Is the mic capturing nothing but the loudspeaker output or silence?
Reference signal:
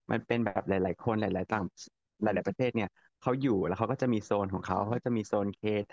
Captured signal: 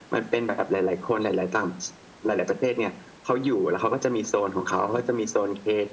Yes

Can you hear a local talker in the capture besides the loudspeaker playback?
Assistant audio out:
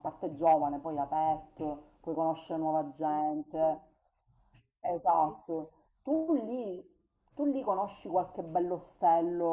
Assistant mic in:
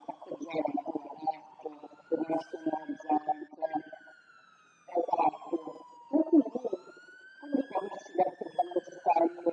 No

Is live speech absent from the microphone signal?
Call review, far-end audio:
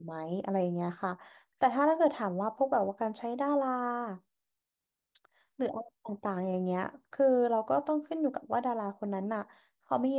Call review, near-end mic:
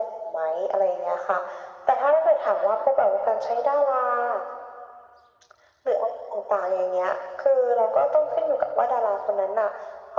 Yes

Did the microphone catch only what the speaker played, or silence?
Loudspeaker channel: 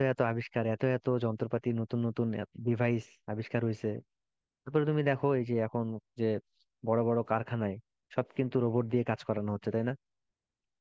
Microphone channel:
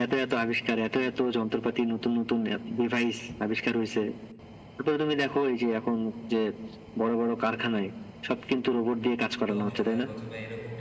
No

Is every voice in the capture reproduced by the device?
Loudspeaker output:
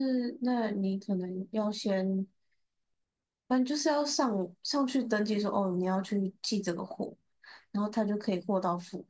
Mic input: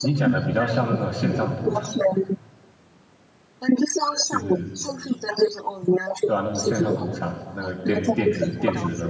No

